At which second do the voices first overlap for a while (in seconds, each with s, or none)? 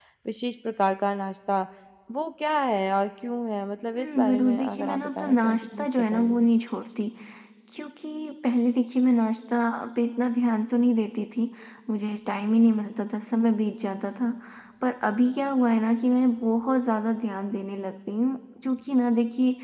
4.0 s